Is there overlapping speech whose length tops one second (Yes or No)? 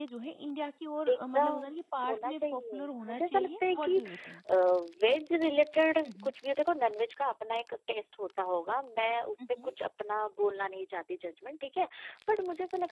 Yes